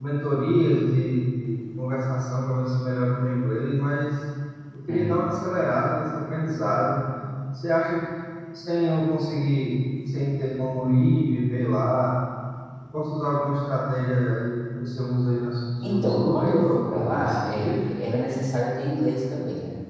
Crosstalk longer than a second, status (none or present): present